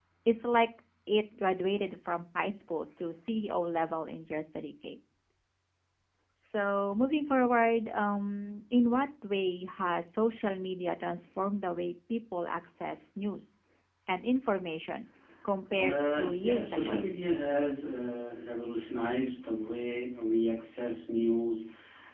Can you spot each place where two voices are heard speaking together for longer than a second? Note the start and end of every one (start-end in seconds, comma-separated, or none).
15.8-17.1